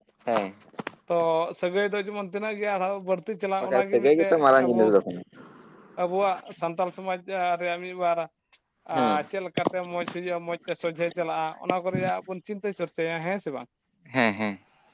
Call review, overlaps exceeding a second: present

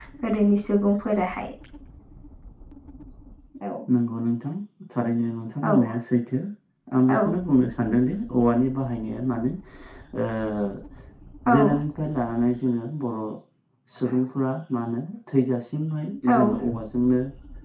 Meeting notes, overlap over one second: none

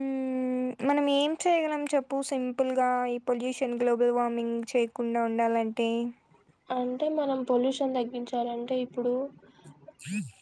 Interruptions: none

